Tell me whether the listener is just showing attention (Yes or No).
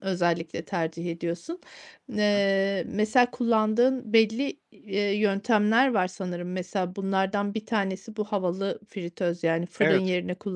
Yes